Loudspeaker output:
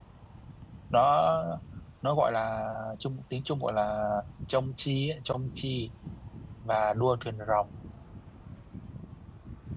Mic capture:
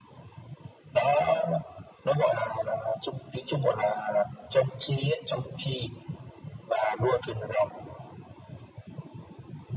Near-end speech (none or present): none